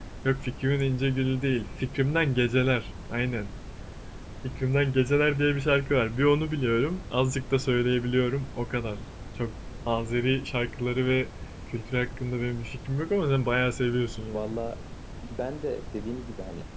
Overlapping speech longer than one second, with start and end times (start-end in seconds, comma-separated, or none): none